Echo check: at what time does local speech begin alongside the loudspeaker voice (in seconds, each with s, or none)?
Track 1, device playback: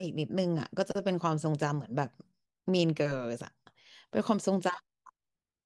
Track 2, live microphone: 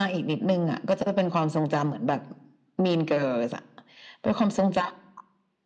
none